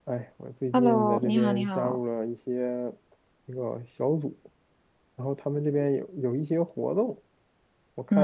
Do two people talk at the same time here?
Yes, from 0.7 s

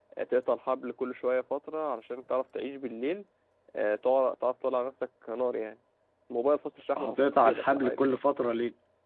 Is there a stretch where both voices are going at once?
Yes, from 7.0 s

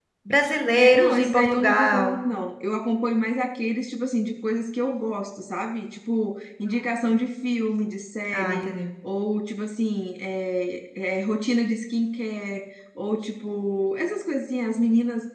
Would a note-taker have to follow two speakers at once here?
Yes, from 0.8 s

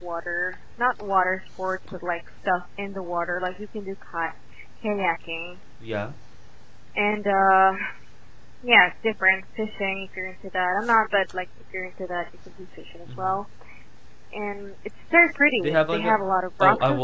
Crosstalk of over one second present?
No

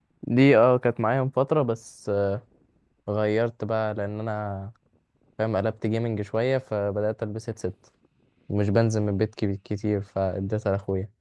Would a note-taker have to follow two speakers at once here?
No

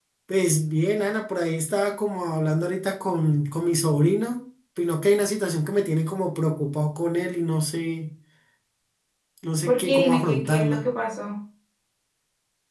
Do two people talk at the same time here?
Yes, from 9.7 s

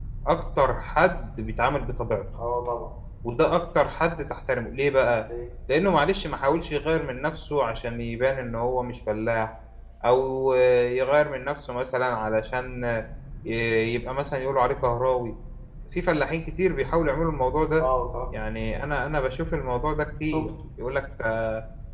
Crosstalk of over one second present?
No

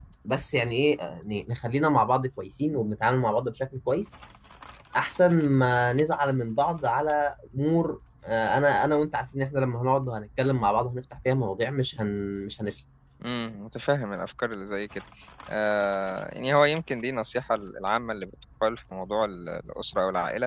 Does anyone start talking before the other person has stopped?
No

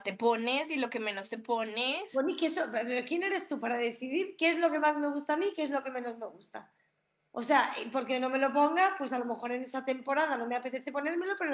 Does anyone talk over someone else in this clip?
No

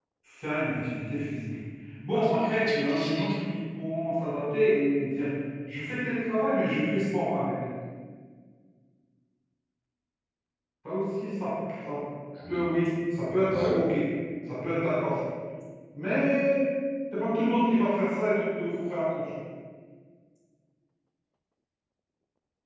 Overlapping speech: Yes, from 2.1 s

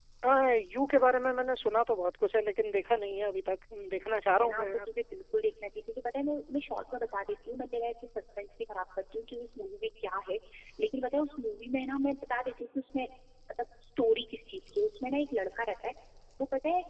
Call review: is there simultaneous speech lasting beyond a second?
No

